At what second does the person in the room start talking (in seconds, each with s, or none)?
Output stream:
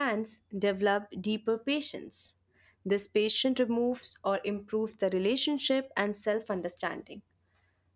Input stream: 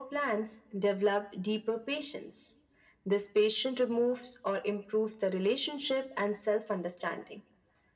none